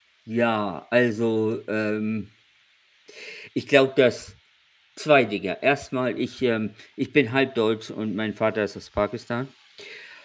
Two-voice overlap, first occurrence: none

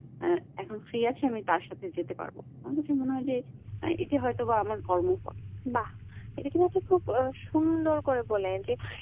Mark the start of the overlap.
none

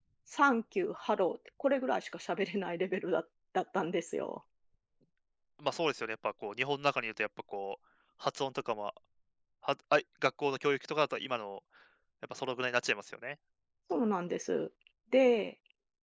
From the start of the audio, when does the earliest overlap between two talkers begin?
none

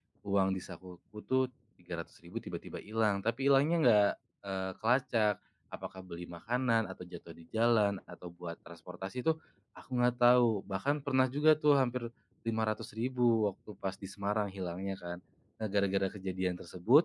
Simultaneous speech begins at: none

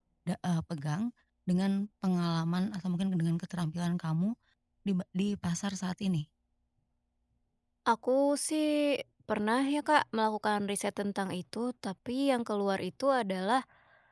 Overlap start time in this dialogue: none

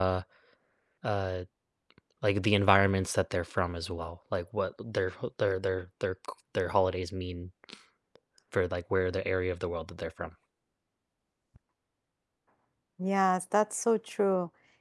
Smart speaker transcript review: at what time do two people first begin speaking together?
none

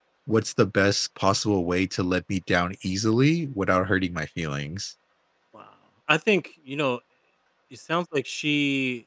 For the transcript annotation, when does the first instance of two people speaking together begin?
none

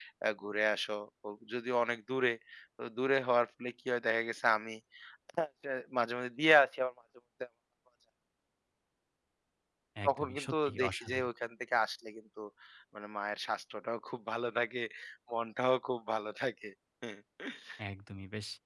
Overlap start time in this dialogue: 10.0 s

